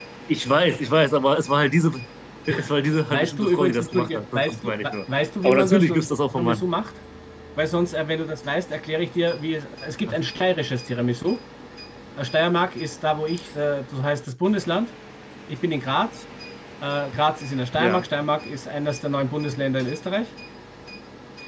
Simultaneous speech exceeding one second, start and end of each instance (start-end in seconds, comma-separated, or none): 3.1-5.0